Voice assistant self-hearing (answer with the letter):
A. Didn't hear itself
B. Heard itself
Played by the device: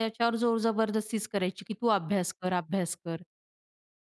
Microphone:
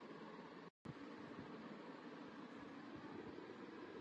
A